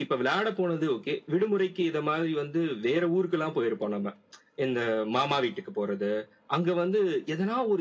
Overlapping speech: No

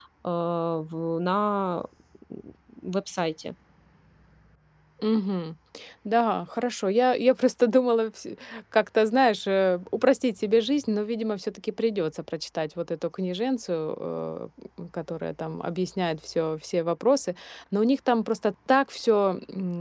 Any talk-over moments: No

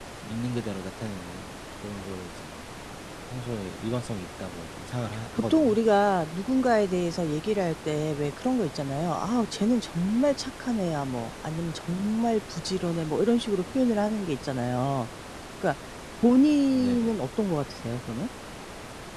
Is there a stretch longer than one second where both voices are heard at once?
No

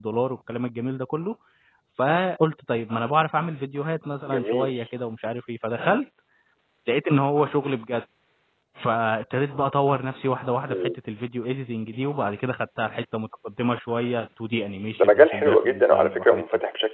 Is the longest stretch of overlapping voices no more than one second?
No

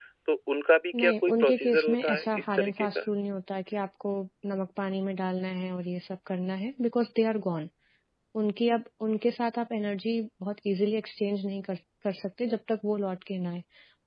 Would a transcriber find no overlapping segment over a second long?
No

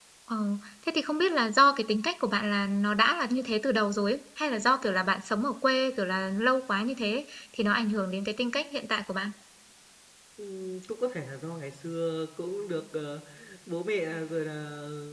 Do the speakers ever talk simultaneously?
No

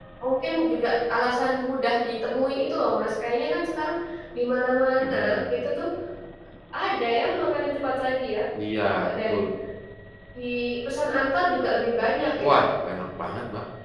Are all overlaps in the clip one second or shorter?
Yes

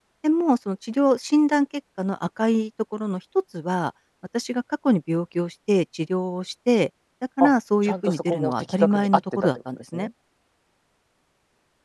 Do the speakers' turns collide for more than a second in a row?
Yes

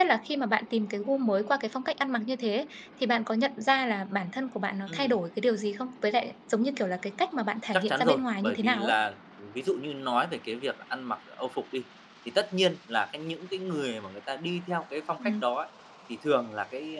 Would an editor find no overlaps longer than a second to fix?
No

